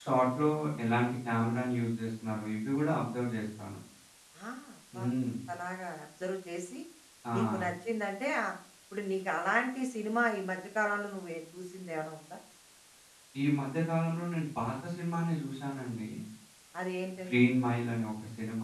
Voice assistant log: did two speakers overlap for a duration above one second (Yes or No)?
No